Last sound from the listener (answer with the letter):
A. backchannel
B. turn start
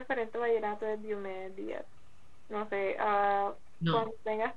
A